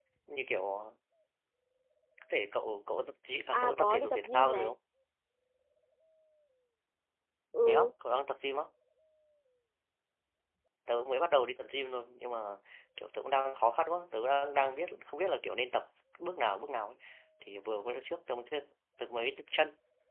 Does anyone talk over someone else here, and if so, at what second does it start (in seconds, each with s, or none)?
3.5 s